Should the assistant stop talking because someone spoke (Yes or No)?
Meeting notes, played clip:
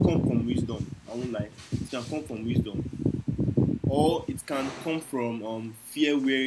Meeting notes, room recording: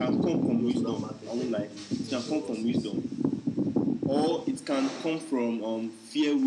Yes